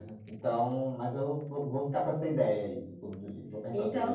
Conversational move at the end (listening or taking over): taking over